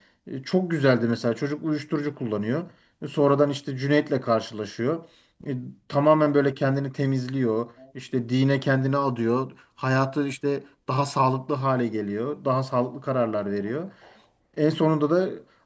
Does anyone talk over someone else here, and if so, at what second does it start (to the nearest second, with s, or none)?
none